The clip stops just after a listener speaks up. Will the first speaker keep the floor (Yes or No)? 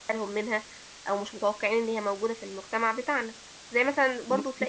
Yes